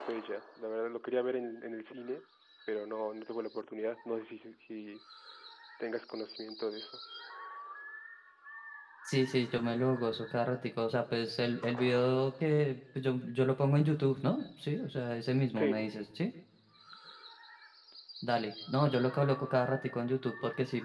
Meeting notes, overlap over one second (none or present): none